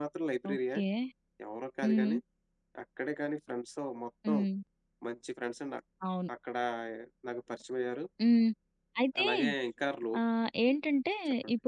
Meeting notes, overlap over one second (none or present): none